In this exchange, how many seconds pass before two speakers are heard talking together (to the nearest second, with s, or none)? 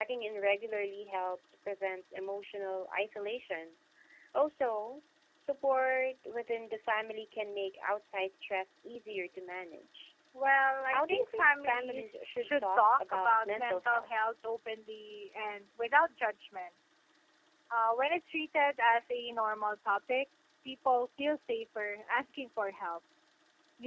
11 s